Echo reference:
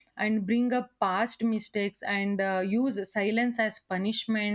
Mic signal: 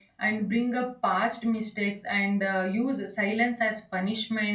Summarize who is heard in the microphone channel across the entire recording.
echo only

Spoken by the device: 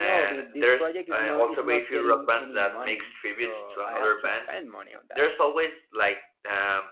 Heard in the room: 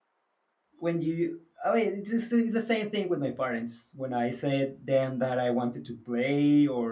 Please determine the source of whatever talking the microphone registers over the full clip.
user only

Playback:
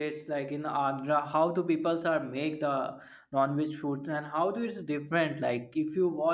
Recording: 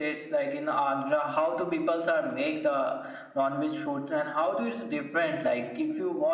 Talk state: echo only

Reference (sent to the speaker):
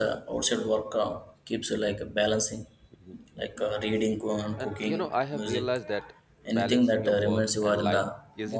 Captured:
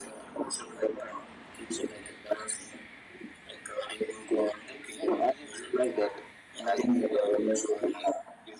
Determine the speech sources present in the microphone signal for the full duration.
echo only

